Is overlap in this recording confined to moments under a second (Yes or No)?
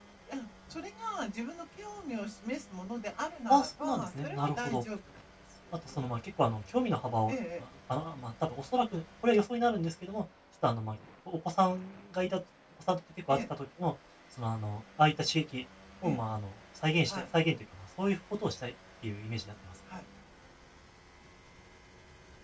No